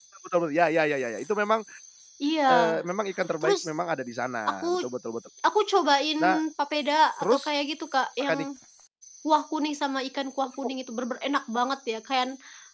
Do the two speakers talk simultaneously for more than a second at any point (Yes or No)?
No